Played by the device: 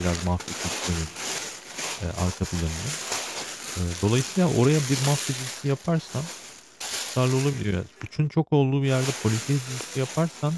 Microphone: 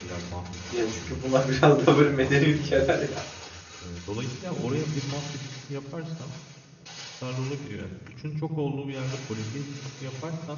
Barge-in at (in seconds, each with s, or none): 0.7 s